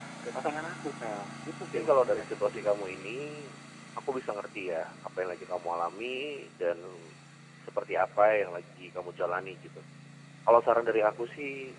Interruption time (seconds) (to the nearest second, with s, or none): 2 s